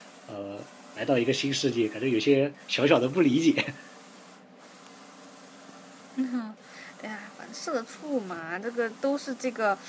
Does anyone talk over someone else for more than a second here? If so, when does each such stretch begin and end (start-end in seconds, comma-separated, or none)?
none